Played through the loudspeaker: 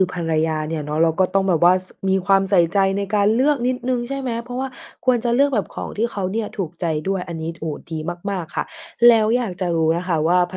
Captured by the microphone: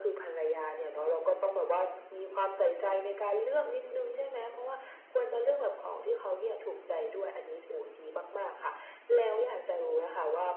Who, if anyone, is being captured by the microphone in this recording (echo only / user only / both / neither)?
echo only